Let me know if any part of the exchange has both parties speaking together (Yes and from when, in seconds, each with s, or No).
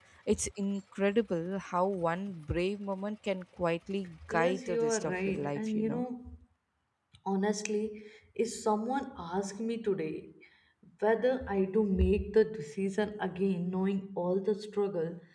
Yes, from 4.3 s